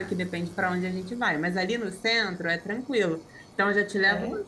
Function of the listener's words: listening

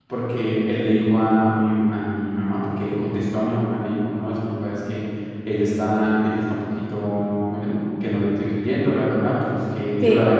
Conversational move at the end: listening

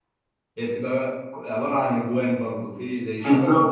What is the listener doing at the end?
taking over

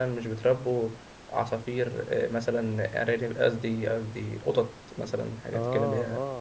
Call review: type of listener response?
taking over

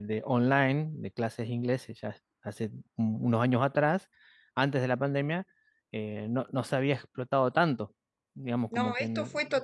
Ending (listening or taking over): taking over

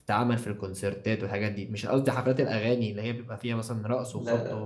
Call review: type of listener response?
listening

